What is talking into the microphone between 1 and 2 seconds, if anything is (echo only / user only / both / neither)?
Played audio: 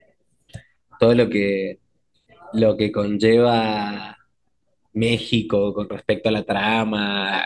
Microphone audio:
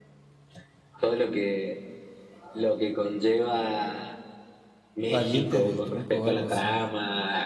echo only